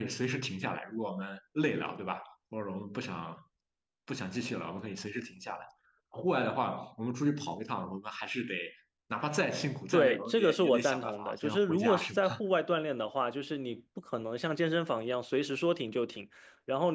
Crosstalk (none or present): present